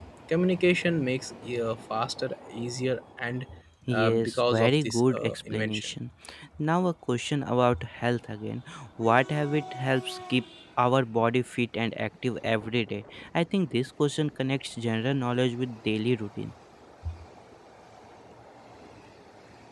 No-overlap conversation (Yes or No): No